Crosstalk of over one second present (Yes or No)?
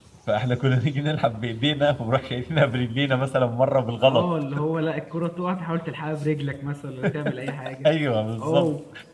No